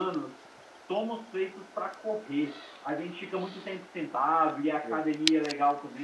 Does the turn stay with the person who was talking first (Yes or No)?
Yes